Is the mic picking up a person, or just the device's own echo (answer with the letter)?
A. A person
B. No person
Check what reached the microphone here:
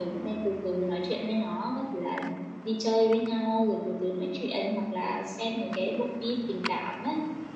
B